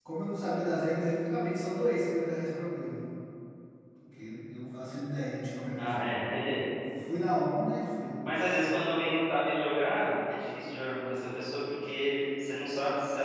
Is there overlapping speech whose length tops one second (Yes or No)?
No